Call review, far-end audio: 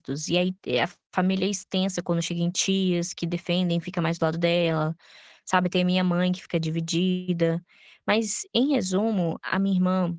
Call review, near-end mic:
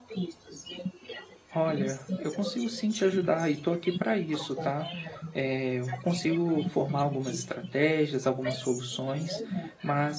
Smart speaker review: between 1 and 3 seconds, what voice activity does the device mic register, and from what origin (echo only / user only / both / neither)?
both